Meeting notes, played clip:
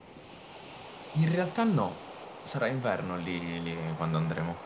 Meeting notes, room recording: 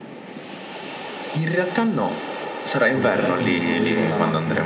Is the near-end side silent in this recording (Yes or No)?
No